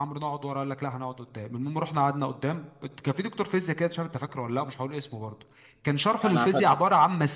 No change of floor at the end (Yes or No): Yes